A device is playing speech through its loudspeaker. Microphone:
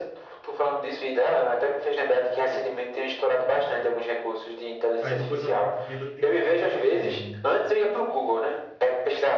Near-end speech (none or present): present